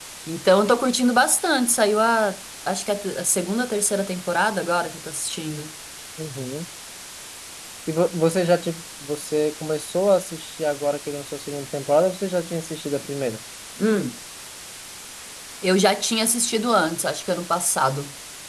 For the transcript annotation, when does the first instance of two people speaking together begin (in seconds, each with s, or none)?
none